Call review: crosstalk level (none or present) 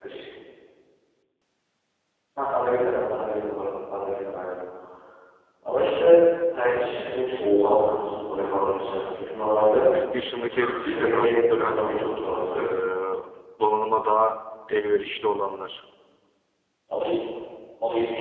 present